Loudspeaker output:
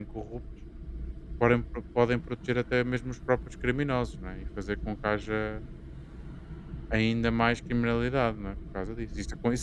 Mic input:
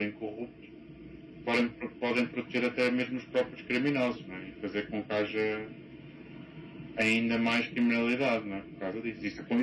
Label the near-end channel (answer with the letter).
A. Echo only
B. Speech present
A